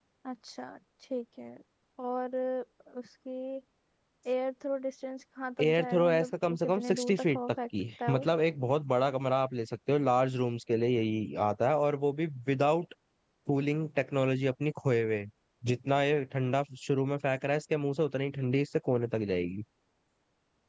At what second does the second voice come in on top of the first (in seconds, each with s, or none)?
5.6 s